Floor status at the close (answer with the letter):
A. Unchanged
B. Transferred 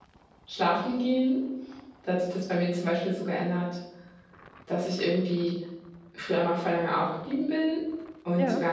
A